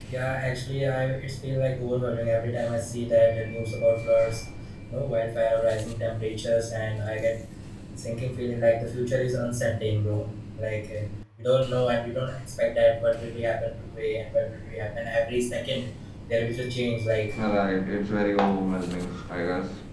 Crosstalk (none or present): none